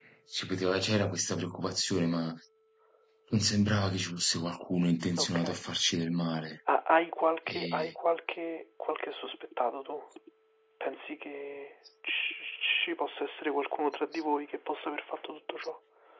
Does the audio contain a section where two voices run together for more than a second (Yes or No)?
No